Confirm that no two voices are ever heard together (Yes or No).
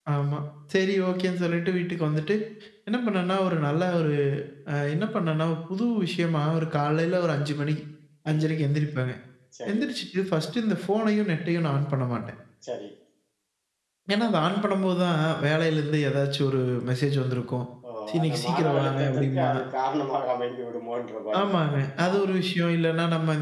No